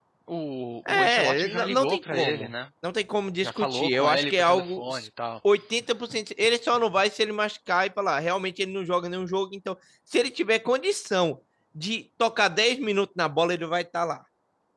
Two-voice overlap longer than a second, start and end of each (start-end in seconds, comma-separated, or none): 0.9-2.5, 3.4-4.8